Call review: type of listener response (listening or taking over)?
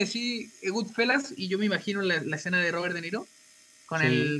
listening